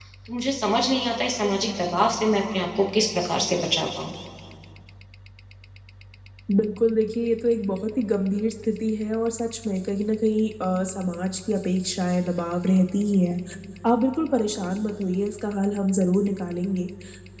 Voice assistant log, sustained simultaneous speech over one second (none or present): none